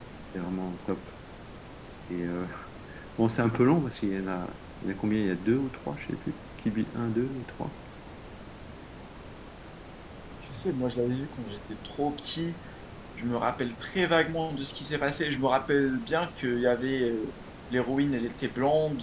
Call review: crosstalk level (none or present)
none